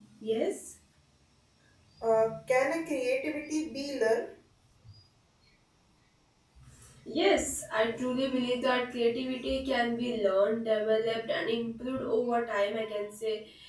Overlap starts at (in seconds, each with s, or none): none